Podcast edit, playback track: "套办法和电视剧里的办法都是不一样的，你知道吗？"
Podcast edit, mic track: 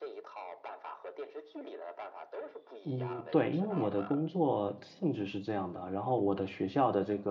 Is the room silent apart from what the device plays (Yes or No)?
No